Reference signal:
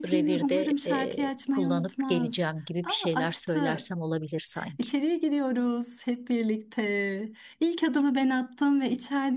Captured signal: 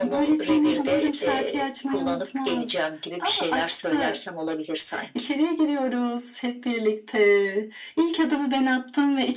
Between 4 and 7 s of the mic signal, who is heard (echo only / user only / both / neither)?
echo only